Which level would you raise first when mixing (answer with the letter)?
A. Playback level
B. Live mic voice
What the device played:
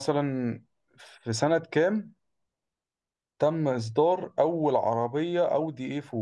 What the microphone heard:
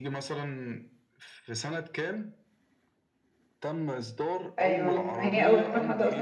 A